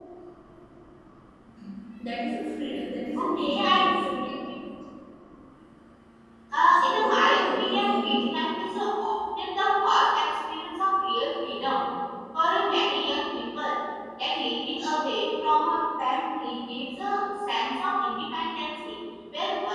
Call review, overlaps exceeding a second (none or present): present